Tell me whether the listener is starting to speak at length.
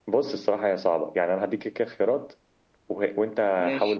No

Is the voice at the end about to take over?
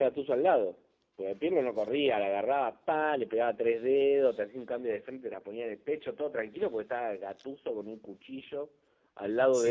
Yes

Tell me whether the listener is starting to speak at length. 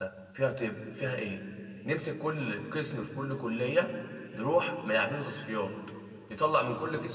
No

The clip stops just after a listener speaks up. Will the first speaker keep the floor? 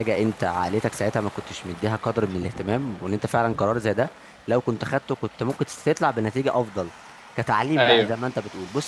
Yes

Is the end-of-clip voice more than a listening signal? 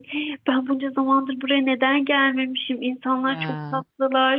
No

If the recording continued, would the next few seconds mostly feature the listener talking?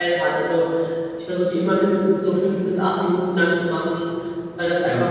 No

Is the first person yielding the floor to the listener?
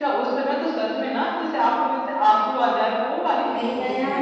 Yes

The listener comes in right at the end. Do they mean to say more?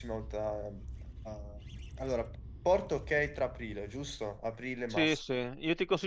Yes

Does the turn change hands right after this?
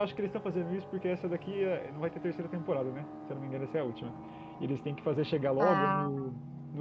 No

